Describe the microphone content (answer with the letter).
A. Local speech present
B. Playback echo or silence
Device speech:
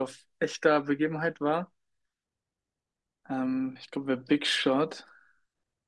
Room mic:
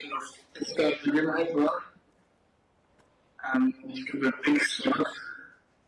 B